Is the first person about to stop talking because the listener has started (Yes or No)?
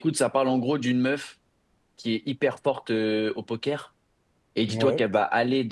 No